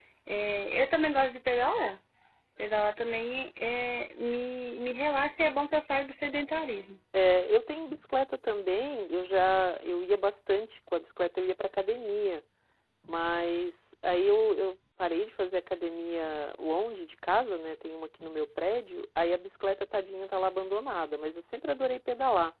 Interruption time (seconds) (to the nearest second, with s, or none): none